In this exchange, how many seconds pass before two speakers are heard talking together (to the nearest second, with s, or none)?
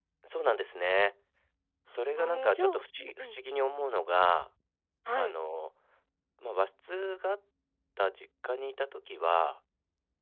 2 s